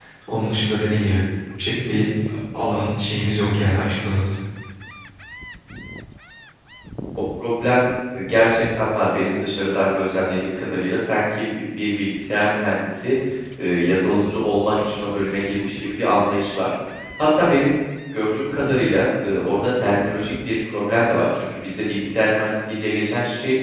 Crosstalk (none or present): none